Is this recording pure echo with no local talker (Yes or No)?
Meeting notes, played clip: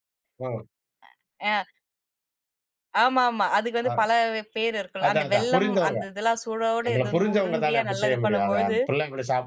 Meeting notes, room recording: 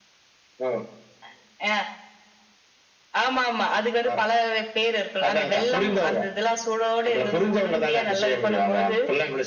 Yes